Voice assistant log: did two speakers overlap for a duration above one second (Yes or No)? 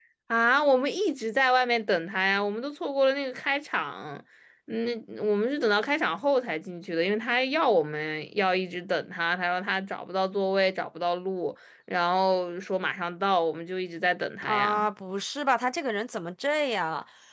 No